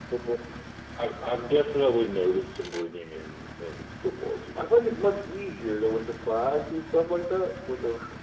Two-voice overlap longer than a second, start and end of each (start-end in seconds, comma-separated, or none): none